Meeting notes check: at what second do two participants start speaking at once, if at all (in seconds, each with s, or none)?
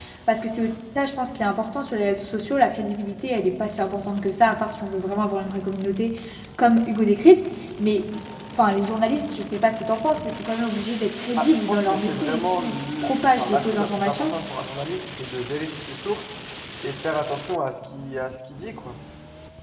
11.4 s